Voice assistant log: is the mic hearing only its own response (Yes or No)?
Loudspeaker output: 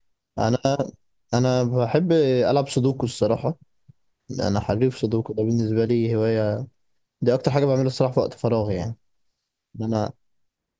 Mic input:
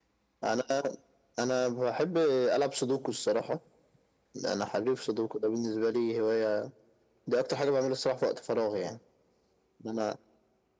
Yes